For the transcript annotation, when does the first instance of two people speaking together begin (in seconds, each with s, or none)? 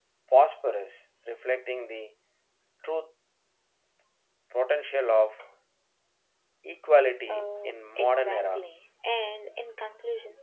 7.3 s